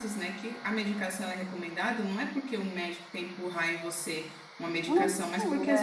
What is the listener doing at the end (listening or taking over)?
listening